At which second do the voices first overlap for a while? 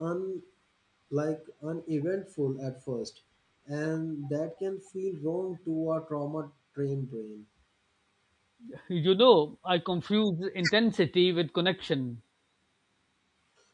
none

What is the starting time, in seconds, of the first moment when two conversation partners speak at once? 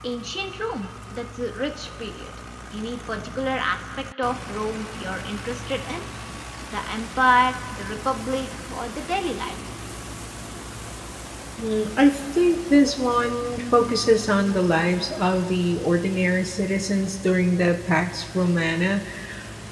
none

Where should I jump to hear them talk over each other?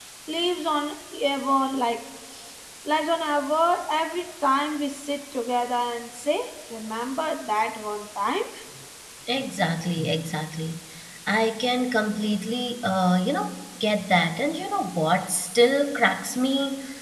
none

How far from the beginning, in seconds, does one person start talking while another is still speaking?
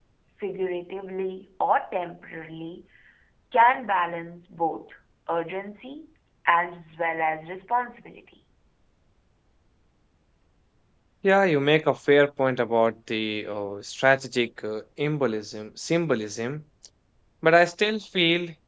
none

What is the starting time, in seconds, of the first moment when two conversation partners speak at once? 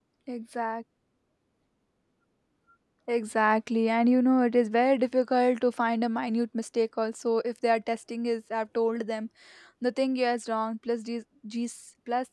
none

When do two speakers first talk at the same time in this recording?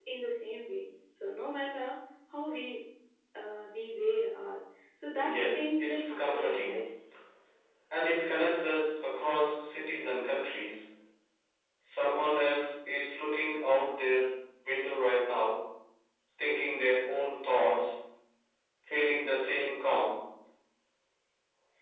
5.2 s

